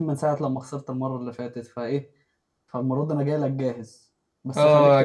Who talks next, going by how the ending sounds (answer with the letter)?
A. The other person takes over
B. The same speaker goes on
A